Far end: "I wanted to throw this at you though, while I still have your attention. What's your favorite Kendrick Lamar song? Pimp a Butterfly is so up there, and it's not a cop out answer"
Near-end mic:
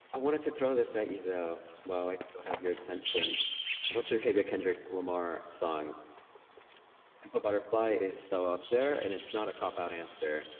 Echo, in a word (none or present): present